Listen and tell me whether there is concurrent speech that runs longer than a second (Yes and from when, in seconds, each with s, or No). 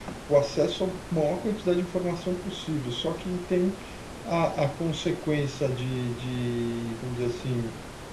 No